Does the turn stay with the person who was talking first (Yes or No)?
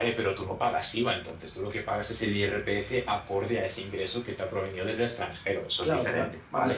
No